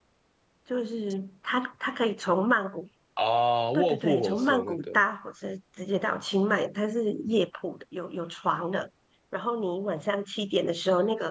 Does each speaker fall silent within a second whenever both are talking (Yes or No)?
No